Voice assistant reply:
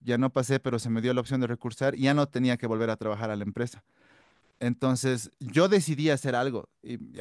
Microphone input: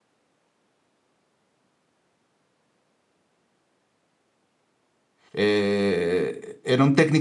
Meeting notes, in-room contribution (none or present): present